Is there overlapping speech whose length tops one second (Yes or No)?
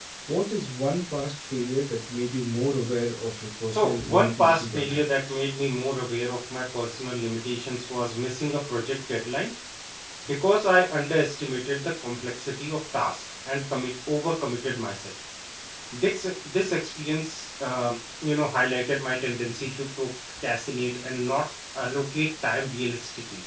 Yes